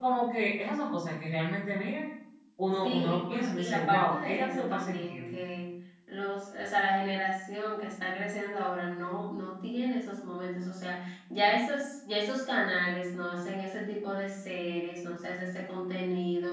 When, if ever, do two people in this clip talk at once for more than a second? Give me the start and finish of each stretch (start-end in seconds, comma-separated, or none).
2.8-5.4